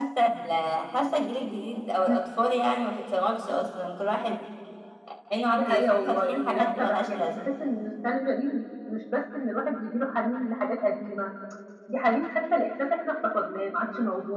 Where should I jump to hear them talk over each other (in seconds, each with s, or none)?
5.5 s